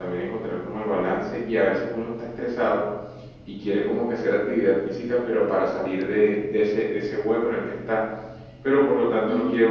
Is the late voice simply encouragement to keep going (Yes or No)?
Yes